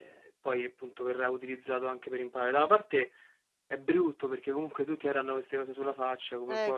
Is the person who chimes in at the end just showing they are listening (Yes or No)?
No